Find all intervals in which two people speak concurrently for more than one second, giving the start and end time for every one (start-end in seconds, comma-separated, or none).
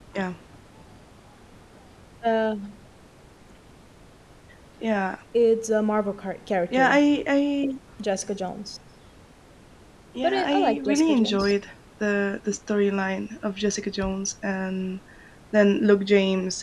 10.2-11.5